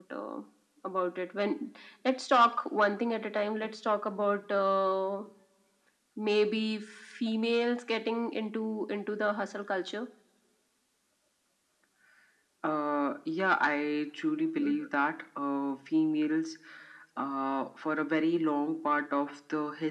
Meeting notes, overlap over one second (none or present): none